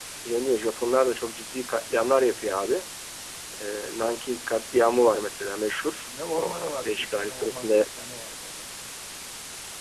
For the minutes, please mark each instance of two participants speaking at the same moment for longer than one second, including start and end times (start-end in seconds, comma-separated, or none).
6.3-7.9